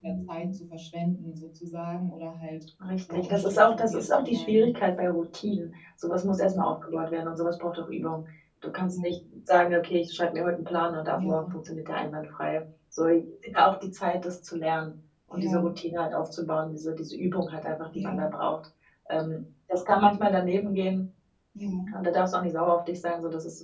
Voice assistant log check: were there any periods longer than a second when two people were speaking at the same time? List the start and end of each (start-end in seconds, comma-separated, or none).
3.1-4.7